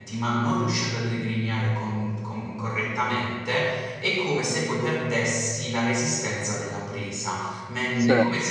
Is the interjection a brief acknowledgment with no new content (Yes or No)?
Yes